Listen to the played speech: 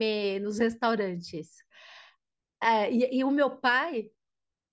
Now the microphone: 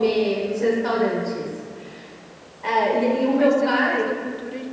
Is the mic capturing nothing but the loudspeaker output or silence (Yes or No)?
No